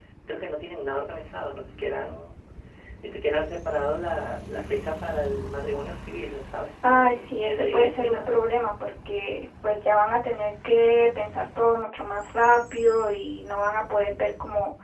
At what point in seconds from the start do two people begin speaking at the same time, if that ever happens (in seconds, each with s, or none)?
6.8 s